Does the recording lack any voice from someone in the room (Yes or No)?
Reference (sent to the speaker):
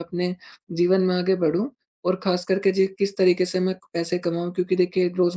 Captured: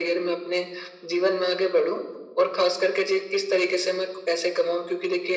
Yes